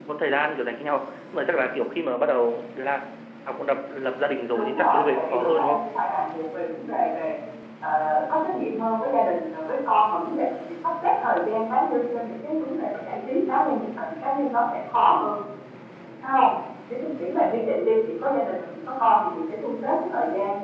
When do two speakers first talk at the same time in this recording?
5 s

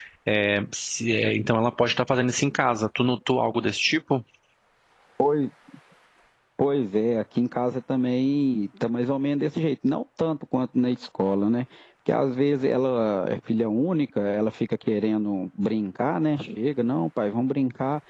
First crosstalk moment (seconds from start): none

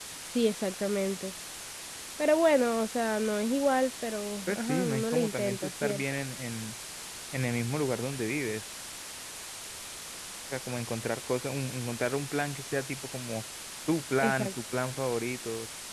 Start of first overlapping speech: 4 s

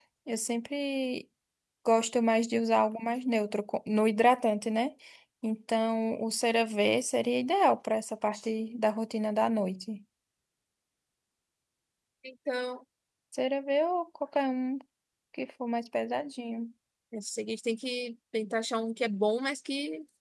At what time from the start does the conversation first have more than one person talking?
none

